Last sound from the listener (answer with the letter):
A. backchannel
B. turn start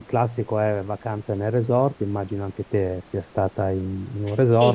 B